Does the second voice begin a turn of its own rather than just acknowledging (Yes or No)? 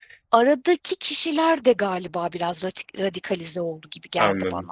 Yes